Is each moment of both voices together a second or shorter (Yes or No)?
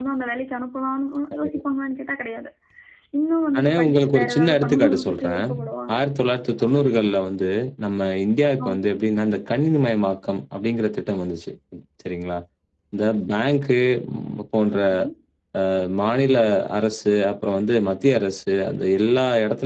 No